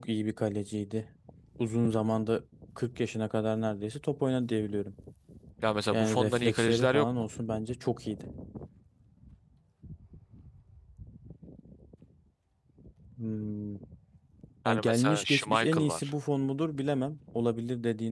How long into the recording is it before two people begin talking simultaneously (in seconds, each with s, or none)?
5.9 s